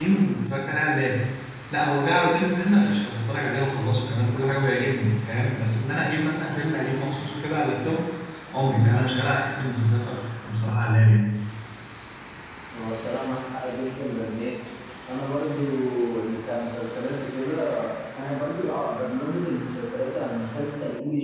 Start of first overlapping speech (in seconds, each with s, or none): none